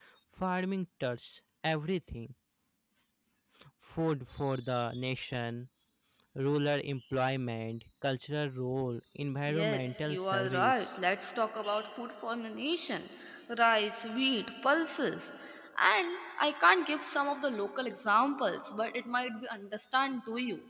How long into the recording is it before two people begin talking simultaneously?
9 s

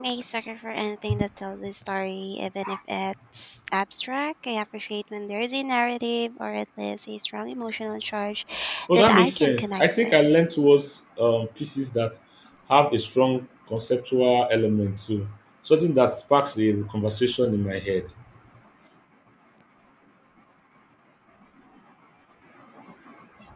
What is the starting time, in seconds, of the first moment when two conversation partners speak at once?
9 s

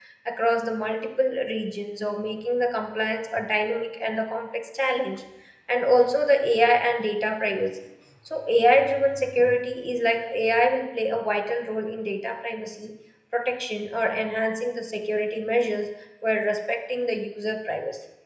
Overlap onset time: none

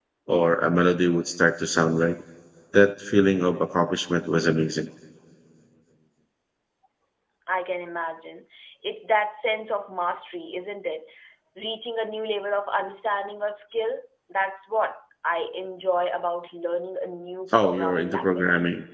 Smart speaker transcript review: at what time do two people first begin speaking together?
18 s

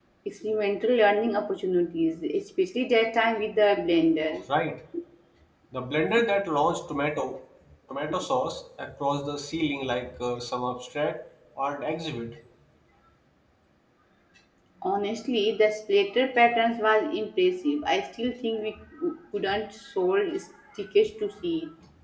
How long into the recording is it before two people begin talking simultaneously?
none

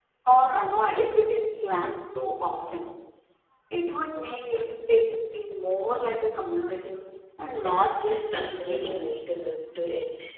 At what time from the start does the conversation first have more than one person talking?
8 s

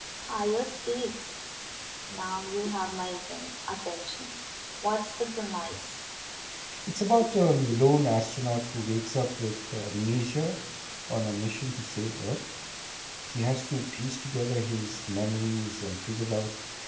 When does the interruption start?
none

